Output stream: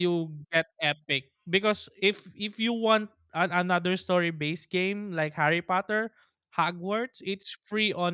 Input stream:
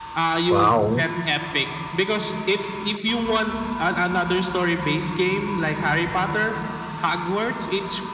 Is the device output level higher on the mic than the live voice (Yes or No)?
No